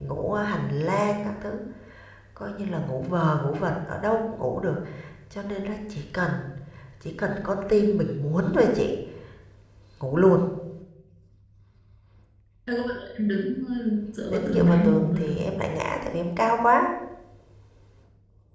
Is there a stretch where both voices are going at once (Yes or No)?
Yes